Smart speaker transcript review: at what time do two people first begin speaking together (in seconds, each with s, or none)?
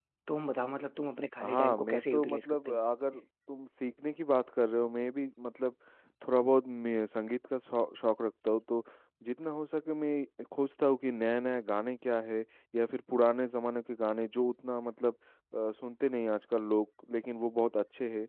1.4 s